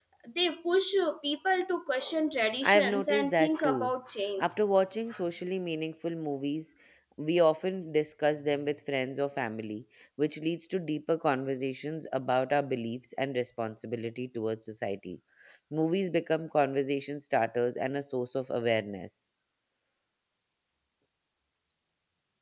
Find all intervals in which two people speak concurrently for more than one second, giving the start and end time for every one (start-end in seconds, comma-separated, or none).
2.6-3.9